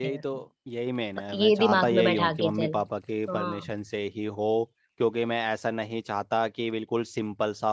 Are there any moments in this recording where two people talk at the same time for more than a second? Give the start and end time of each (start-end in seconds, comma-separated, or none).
1.3-2.8